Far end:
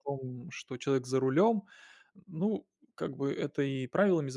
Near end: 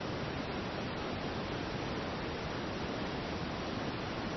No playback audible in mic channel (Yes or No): Yes